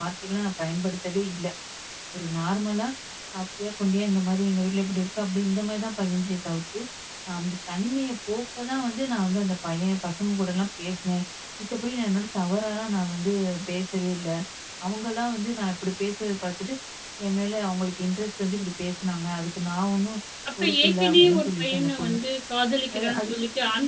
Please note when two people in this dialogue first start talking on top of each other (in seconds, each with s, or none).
20.6 s